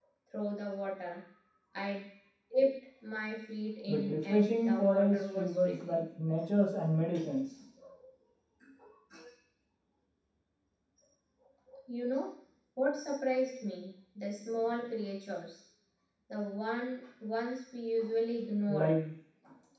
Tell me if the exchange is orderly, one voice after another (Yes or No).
No